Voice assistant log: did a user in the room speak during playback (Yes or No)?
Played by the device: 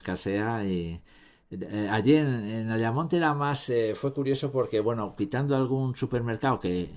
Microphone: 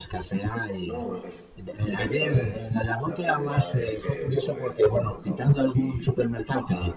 Yes